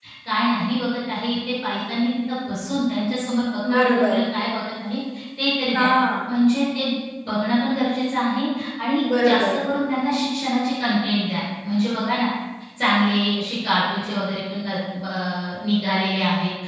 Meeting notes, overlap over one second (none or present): none